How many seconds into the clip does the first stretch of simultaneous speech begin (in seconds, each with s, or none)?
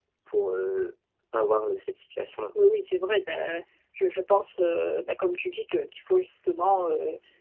none